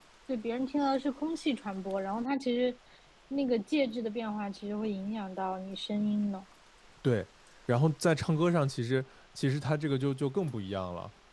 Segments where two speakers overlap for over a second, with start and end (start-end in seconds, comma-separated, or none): none